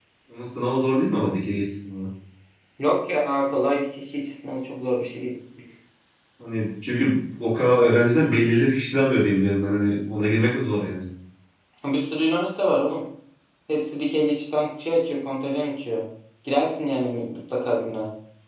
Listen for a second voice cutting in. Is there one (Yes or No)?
No